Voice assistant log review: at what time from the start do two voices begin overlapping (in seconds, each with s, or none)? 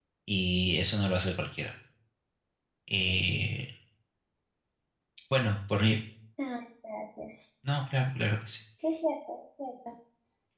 none